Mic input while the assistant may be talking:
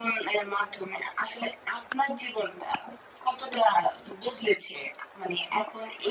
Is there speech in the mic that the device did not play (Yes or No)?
No